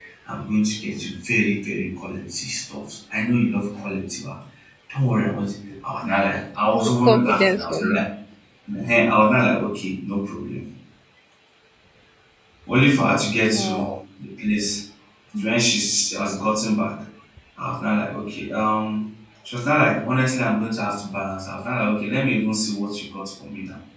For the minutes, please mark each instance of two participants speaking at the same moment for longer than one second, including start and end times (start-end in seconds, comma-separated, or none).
6.7-7.9